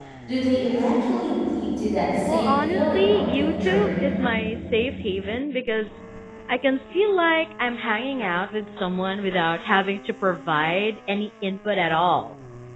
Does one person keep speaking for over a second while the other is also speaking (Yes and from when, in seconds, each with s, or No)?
Yes, from 2.3 s